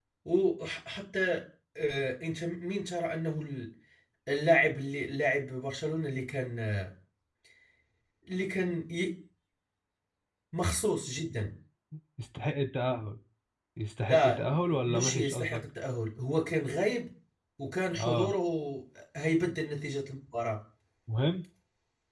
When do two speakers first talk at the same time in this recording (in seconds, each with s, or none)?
14.1 s